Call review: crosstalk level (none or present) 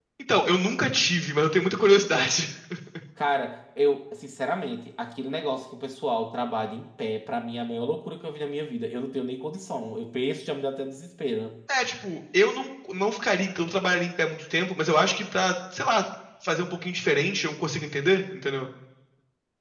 none